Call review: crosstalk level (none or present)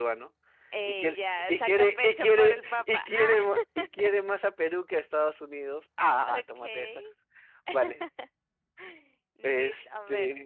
present